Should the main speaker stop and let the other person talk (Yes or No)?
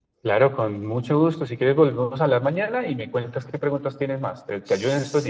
Yes